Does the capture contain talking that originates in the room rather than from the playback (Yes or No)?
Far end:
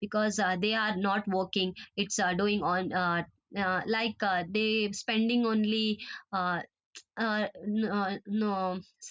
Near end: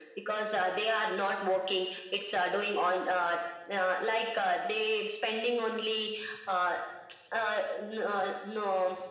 No